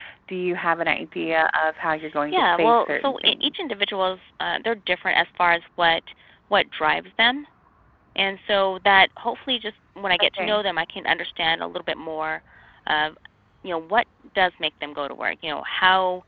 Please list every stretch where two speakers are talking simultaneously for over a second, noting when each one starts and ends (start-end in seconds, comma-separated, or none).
2.3-3.5